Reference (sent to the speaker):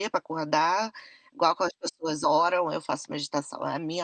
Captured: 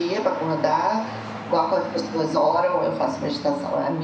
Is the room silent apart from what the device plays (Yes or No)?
Yes